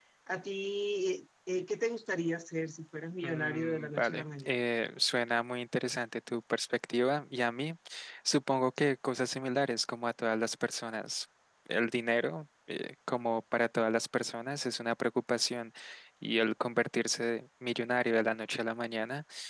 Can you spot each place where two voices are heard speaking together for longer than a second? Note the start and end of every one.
3.2-4.5

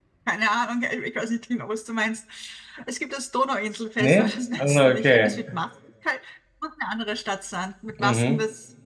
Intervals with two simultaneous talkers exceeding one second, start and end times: 4.0-5.4

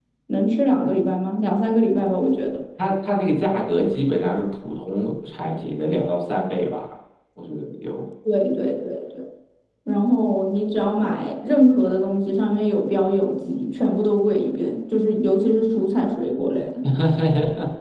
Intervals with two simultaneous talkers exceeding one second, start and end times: none

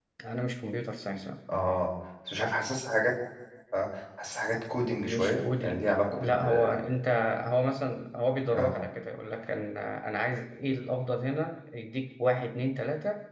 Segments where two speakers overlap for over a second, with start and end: 4.8-6.8

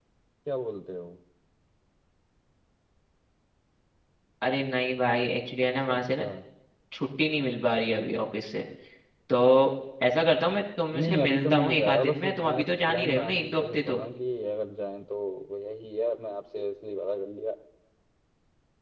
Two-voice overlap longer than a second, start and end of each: 10.9-14.0

